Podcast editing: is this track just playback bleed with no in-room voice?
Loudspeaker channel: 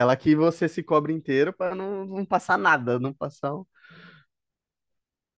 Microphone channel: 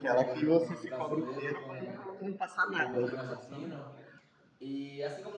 No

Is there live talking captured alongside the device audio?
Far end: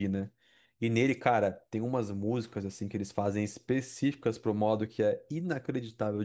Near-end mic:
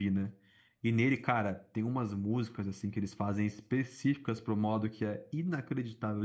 No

